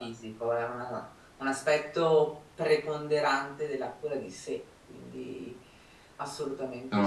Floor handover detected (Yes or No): Yes